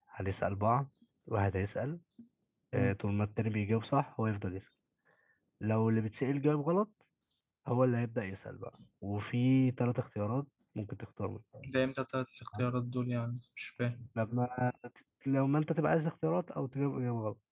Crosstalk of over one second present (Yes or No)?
No